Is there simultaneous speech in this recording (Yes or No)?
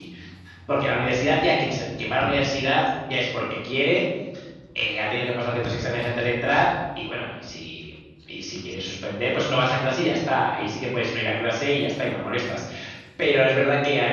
No